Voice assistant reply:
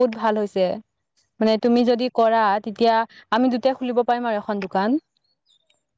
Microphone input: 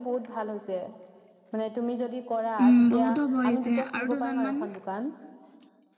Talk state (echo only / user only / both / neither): both